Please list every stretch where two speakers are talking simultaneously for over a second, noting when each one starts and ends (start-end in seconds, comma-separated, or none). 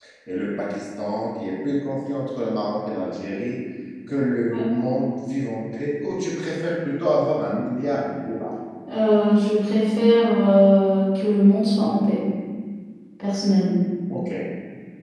none